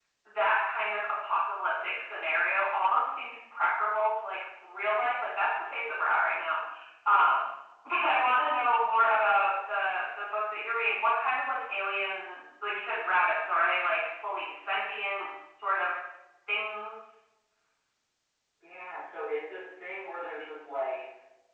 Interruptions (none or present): none